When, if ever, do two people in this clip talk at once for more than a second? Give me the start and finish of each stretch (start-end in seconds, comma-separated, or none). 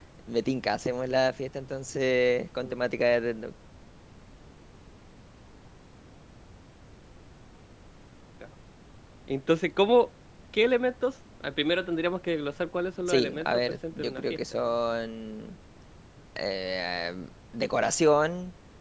13.1-14.7